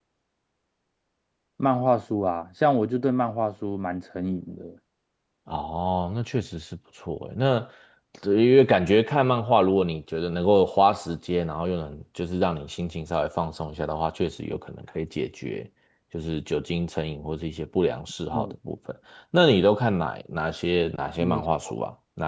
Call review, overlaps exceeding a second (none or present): none